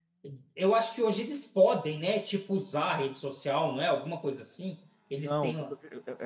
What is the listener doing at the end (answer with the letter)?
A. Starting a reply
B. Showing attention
A